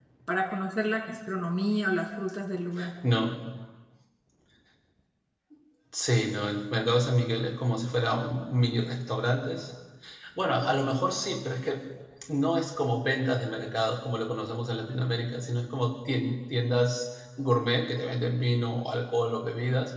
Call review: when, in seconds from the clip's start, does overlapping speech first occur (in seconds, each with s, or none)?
none